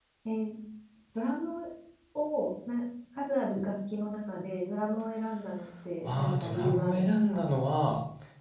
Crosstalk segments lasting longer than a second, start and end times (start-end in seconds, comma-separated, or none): 6.0-7.5